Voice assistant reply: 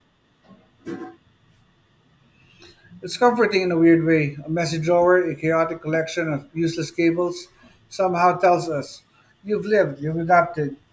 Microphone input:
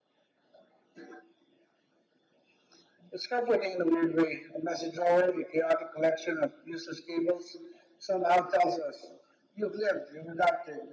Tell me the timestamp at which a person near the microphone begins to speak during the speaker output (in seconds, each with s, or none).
none